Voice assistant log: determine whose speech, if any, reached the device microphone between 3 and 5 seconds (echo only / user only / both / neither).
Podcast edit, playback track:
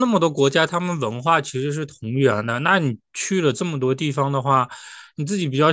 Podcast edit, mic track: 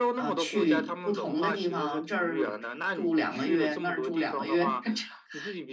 both